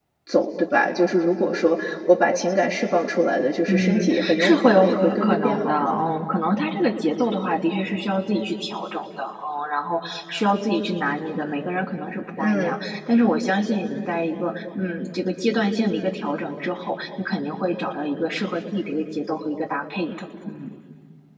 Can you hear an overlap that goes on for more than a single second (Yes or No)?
Yes